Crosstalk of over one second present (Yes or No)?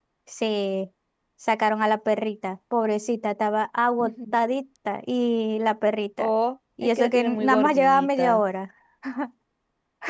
Yes